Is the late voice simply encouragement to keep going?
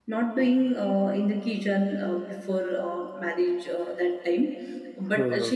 Yes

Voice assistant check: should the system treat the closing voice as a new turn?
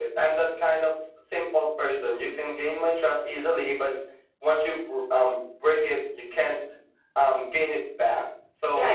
Yes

